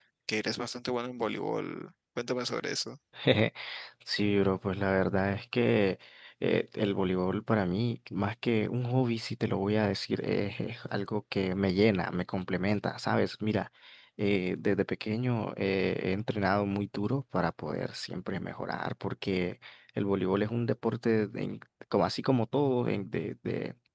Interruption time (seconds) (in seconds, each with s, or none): none